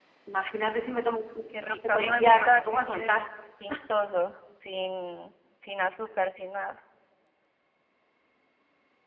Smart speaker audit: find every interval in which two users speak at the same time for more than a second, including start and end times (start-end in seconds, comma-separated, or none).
1.6-3.1